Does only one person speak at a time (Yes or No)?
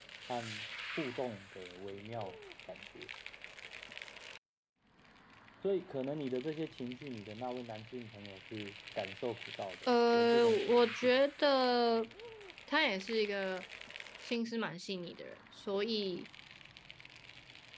No